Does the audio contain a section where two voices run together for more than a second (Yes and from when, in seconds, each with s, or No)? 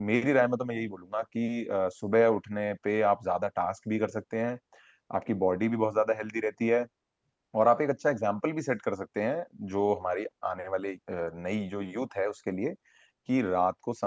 No